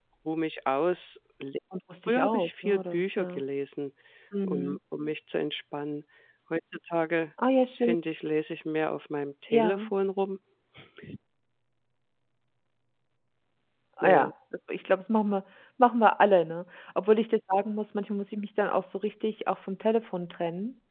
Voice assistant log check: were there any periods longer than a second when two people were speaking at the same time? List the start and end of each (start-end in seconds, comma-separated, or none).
2.1-3.4